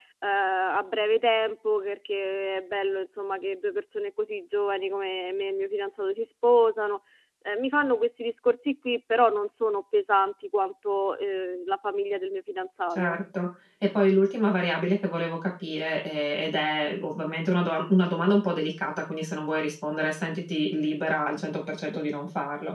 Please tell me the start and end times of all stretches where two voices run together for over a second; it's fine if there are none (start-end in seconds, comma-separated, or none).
none